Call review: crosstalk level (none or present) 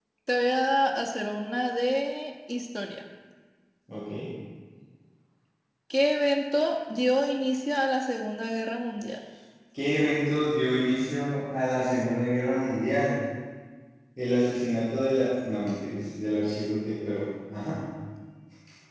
none